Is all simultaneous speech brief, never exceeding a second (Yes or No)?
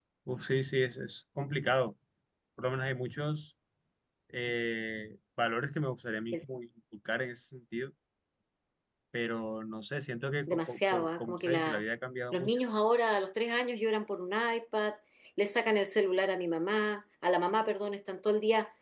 No